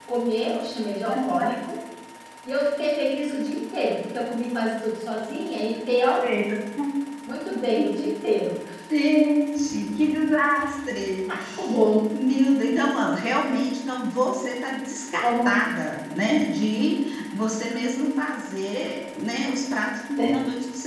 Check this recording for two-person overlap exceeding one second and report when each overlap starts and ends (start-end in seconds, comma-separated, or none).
none